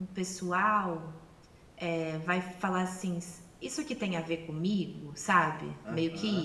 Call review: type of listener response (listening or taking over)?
taking over